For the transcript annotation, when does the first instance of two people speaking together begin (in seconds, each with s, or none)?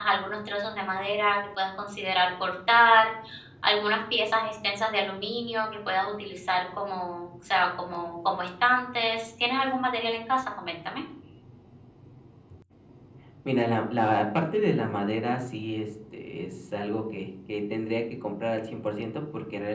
none